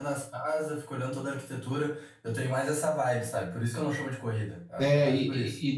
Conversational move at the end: taking over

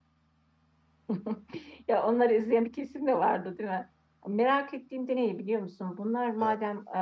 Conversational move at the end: listening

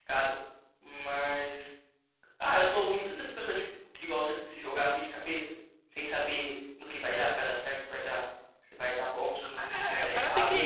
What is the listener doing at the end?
taking over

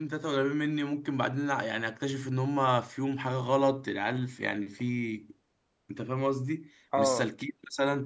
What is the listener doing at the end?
listening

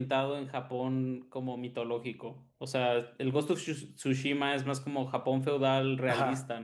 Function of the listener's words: taking over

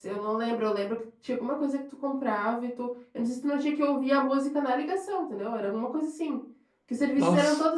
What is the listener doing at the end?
listening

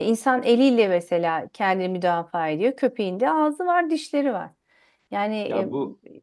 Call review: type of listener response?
taking over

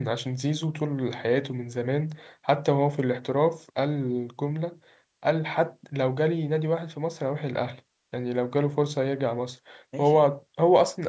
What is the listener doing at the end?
listening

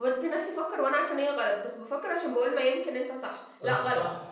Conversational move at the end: listening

